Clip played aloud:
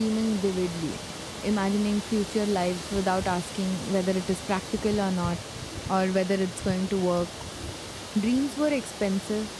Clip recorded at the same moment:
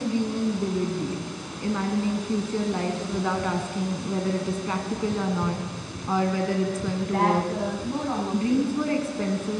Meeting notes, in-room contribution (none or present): present